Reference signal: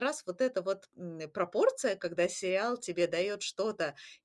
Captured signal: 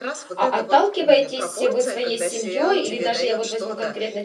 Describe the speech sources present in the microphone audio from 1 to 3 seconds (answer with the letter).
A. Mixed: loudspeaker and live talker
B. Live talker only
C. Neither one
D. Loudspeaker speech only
A